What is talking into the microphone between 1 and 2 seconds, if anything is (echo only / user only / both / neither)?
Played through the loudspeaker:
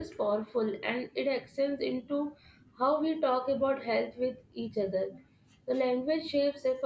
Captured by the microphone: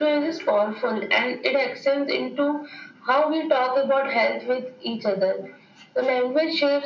echo only